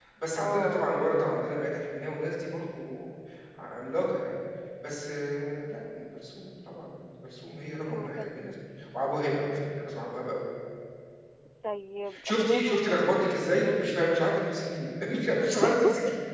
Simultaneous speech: Yes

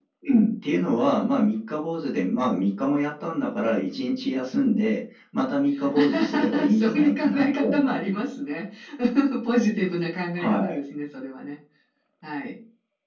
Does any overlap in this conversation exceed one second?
Yes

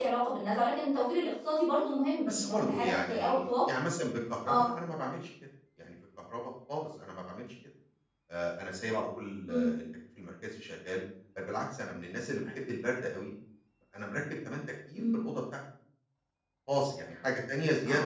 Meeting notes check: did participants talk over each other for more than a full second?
Yes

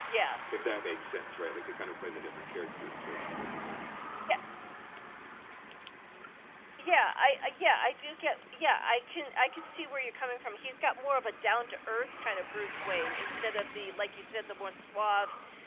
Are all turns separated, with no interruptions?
Yes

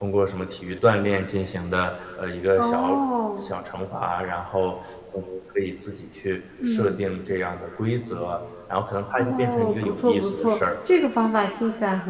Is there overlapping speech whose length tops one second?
Yes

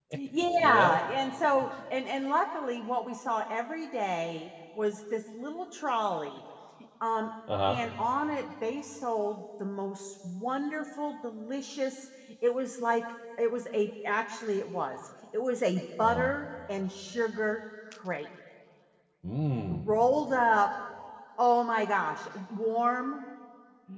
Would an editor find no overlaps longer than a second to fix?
Yes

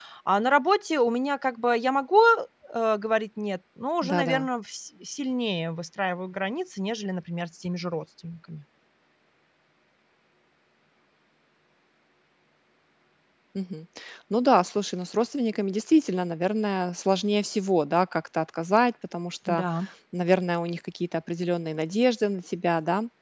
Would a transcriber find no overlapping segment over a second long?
Yes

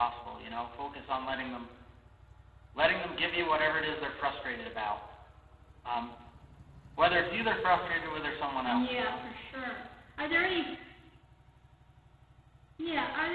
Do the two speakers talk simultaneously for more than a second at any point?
No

